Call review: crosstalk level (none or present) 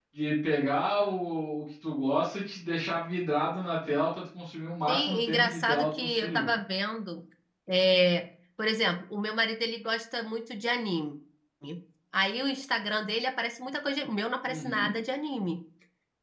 present